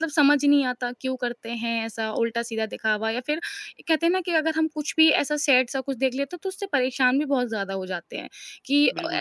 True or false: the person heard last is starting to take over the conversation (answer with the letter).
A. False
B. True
B